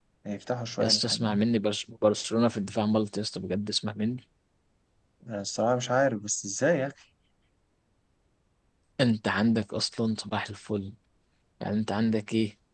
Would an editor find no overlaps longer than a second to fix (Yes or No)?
Yes